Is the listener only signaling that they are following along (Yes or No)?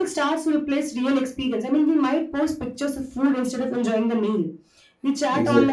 Yes